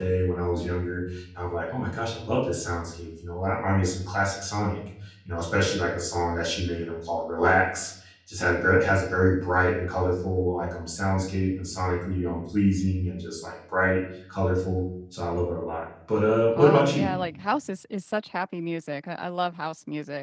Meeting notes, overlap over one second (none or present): none